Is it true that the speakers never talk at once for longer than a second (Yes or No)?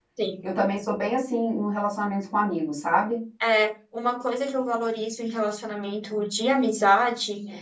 Yes